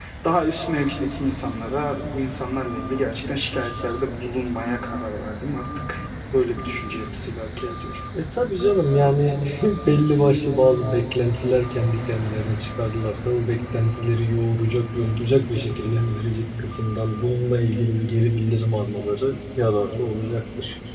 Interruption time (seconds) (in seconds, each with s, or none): none